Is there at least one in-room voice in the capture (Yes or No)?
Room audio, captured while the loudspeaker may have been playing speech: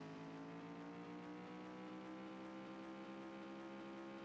No